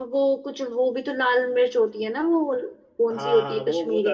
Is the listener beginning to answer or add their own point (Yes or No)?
Yes